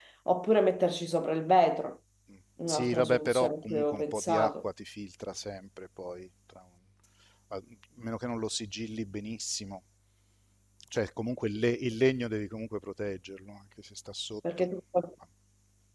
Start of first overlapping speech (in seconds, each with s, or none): 2.7 s